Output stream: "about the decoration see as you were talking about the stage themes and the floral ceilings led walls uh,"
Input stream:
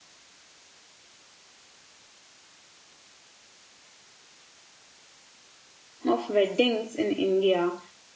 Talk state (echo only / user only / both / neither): user only